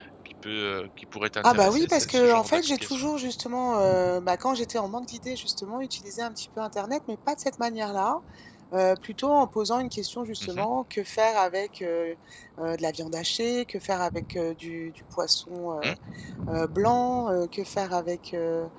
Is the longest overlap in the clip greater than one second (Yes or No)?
Yes